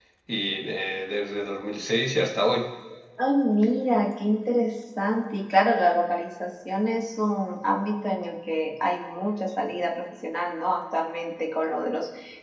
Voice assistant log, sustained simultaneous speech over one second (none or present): none